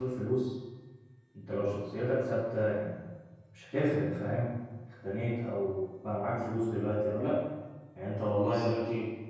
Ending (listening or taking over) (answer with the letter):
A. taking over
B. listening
B